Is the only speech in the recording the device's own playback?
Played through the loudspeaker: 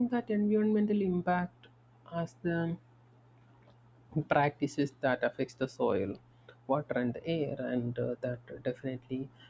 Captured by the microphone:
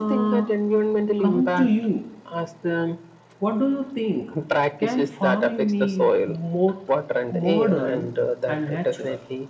No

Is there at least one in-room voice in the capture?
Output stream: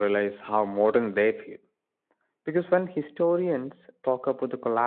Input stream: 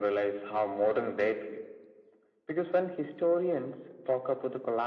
No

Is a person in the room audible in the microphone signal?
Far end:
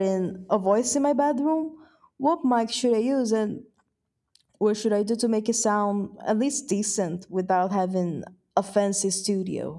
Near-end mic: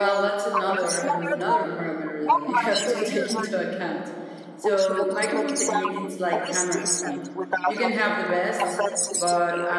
Yes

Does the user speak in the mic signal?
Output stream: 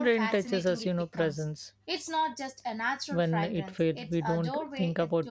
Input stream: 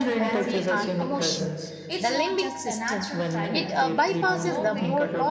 Yes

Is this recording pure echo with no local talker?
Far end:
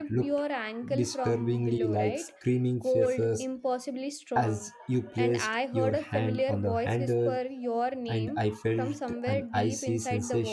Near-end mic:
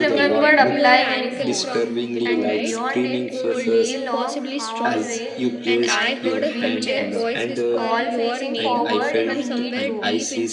No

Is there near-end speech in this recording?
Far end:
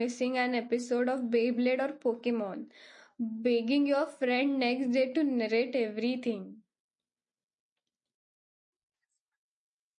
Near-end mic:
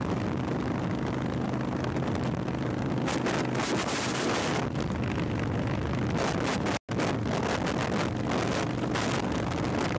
No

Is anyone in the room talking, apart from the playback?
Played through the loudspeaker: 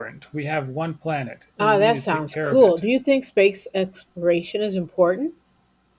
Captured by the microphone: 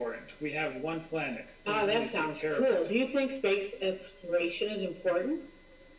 No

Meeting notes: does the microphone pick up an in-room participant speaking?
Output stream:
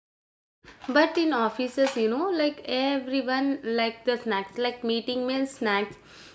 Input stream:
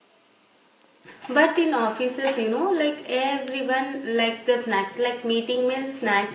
No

